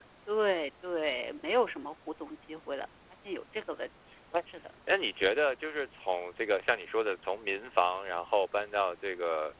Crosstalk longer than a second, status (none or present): none